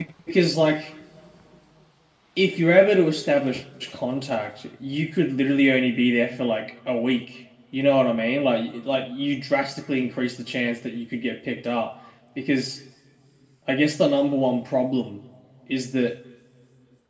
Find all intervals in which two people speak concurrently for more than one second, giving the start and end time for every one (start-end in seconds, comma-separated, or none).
none